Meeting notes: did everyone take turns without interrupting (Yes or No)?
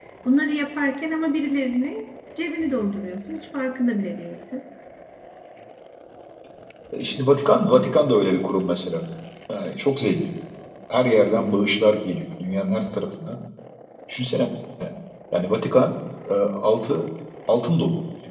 Yes